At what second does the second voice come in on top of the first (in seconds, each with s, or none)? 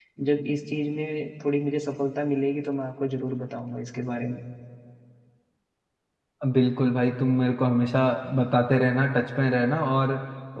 none